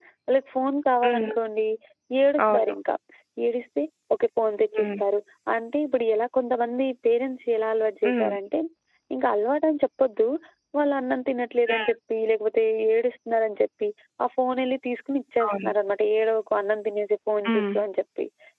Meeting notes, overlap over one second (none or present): none